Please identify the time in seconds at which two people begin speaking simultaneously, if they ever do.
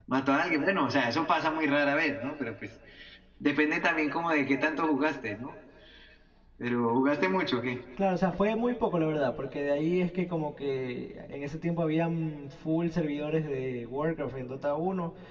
none

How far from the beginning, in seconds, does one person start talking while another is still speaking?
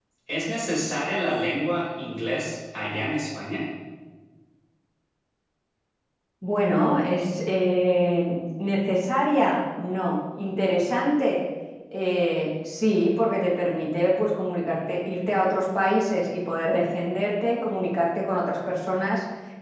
none

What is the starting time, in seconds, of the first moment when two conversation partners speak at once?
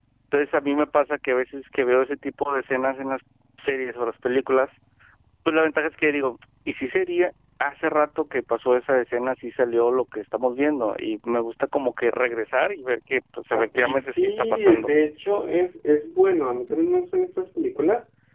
14 s

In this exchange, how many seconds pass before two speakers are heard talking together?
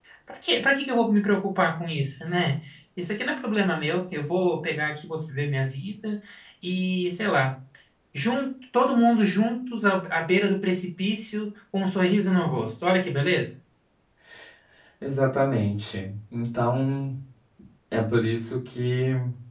none

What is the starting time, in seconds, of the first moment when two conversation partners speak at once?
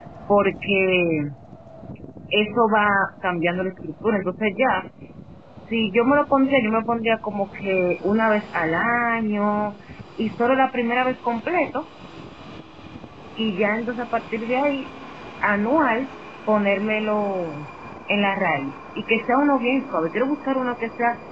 none

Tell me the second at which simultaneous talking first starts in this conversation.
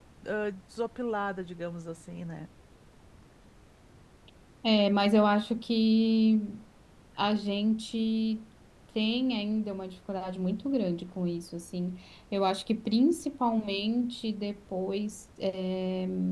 none

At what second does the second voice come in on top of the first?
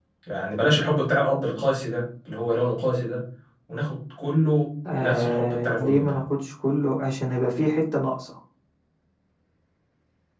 5 s

